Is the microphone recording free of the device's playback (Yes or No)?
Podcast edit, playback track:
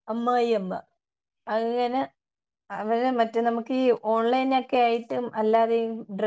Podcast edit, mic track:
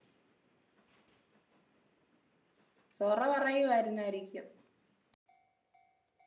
Yes